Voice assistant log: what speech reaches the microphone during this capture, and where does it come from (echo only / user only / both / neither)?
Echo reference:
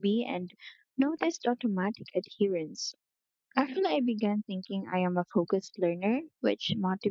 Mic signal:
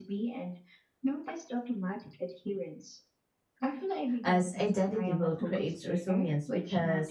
both